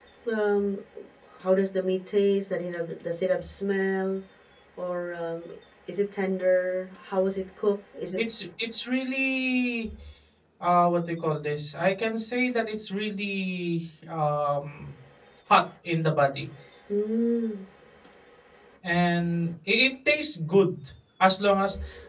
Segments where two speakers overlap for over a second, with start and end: none

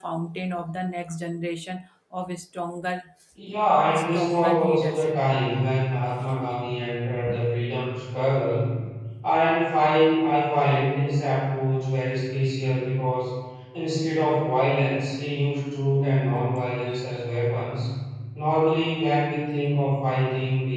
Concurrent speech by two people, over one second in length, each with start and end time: 4.0-5.2

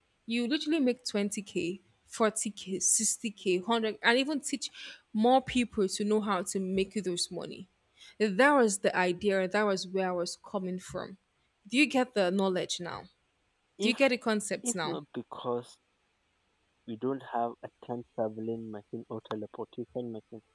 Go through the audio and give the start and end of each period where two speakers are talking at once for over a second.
none

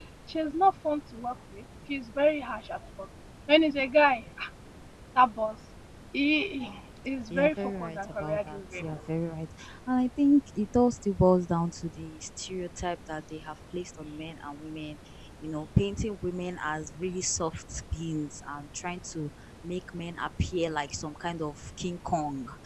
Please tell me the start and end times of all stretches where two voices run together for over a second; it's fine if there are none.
7.3-8.9

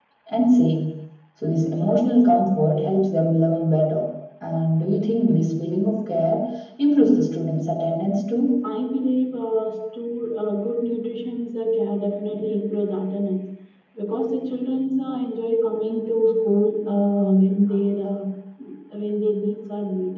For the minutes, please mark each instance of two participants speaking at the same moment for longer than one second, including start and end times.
none

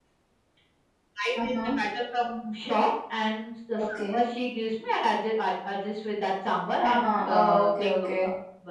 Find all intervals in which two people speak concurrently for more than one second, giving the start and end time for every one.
6.8-8.1

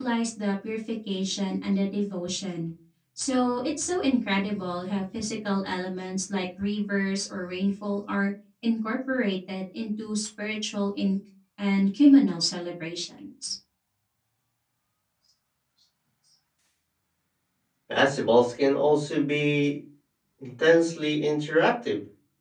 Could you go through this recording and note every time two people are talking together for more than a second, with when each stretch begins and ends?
none

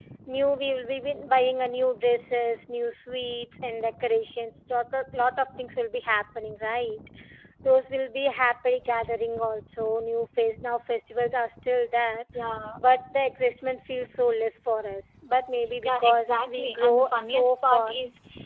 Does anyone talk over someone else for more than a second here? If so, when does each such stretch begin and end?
15.8-17.9

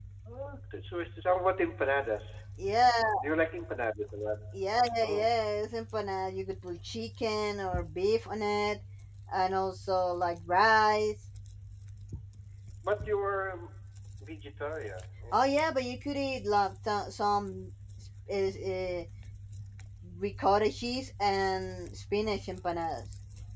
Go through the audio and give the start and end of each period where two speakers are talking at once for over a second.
none

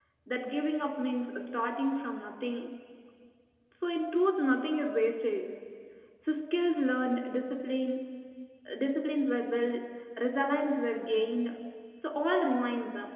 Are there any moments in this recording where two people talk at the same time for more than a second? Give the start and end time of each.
none

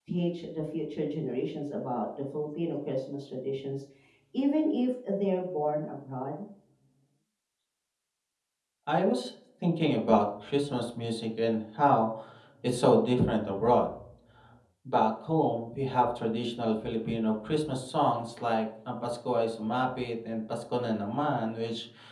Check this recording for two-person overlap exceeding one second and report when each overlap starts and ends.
none

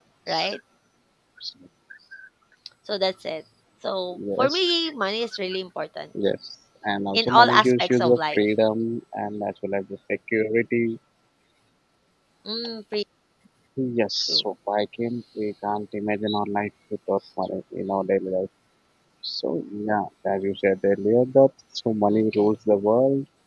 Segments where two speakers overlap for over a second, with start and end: 7.1-8.4

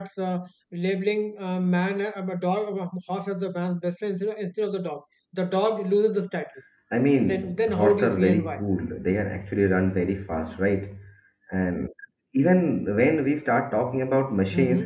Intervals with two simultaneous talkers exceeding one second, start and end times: 7.2-8.6

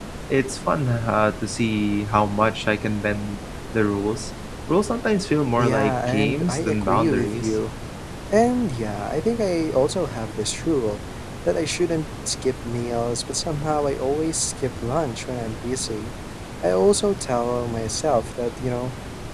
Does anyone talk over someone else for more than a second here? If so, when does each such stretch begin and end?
5.6-7.6

